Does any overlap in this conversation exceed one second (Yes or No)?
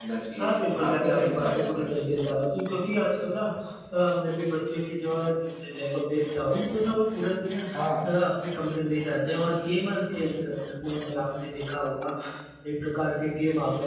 Yes